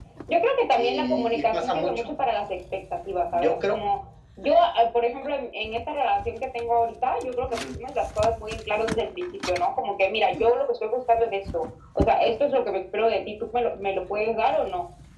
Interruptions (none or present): present